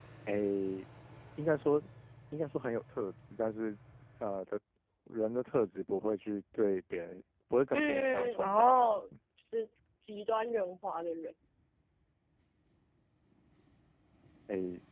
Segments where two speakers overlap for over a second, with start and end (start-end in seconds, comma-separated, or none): 7.7-9.0